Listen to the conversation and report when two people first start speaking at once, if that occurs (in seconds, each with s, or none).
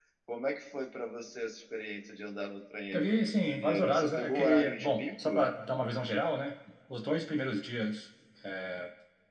2.9 s